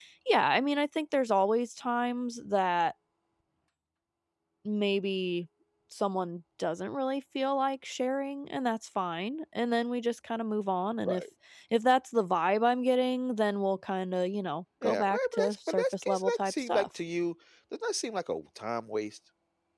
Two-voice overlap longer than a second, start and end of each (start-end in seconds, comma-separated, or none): 14.8-16.8